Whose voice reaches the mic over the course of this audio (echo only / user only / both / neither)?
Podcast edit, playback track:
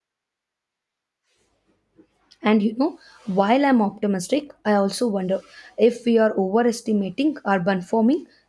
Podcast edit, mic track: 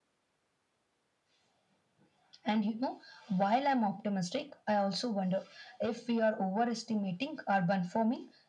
echo only